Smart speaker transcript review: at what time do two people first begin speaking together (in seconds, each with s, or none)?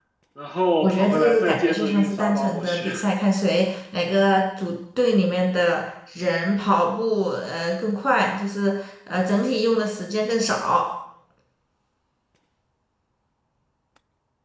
0.8 s